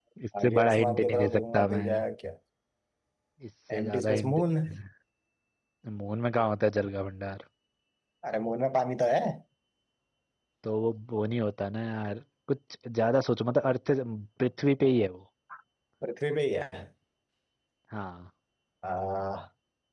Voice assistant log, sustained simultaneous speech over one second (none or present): present